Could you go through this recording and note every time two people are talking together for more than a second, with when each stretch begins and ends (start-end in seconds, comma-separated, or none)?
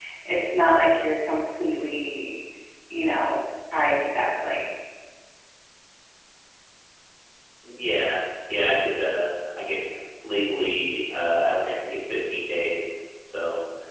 none